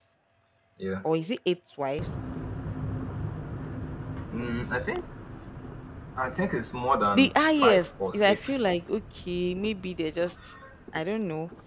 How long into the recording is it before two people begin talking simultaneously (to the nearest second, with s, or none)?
7 s